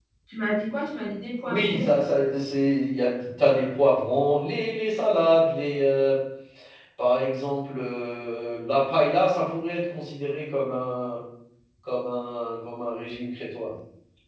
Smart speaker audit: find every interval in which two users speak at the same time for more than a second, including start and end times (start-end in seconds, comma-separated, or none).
none